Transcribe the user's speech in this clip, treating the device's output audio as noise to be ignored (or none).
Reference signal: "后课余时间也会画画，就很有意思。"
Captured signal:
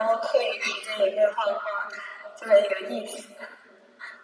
none